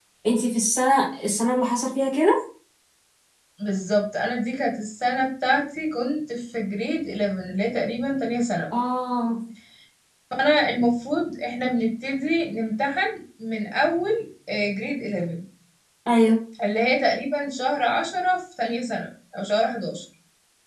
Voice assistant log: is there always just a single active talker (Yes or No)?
Yes